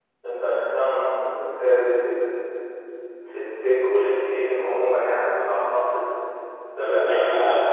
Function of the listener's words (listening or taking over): taking over